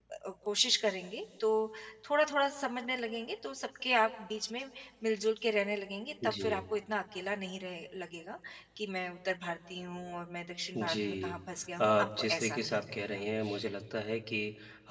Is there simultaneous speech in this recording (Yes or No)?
Yes